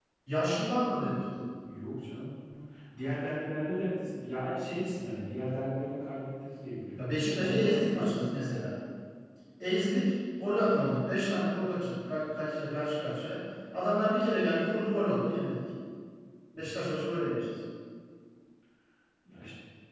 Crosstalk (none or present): present